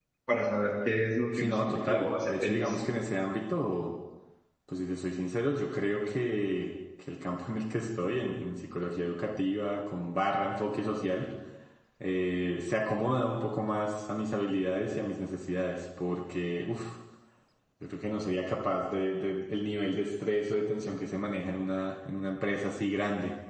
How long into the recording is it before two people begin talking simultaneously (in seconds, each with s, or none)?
1.3 s